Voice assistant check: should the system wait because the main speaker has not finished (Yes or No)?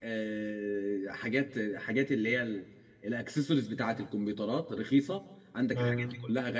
Yes